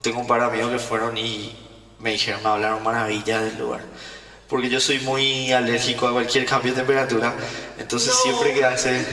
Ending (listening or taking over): listening